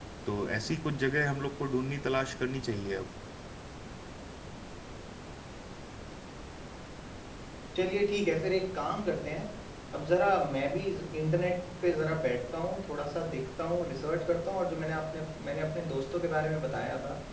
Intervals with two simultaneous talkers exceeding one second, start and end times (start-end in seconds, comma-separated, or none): none